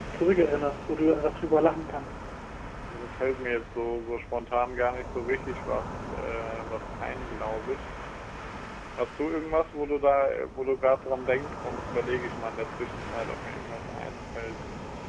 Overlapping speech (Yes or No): No